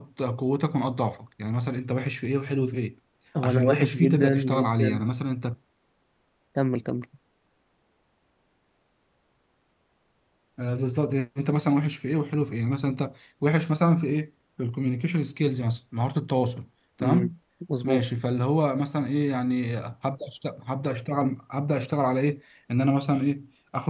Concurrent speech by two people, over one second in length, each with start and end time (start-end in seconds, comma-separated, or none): 3.4-5.0